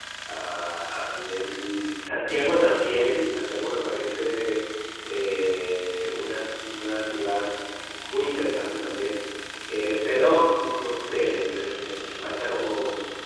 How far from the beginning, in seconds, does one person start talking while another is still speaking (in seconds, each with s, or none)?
none